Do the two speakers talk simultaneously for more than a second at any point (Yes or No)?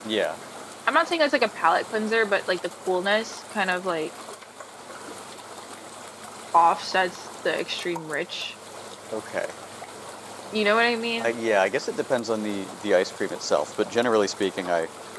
No